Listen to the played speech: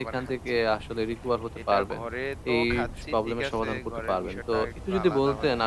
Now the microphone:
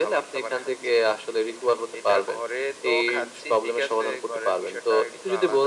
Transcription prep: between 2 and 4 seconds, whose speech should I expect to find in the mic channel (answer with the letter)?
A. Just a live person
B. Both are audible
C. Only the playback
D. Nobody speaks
C